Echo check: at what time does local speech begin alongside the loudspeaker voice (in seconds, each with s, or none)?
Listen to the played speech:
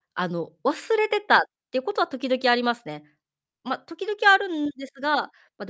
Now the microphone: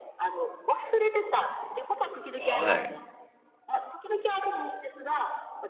2.4 s